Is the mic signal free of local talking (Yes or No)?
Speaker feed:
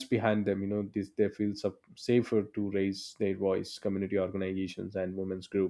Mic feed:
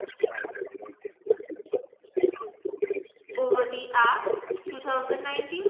No